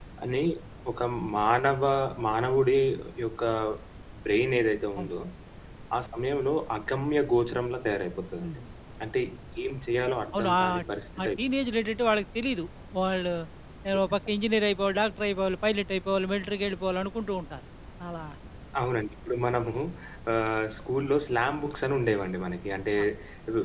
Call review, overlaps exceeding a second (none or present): none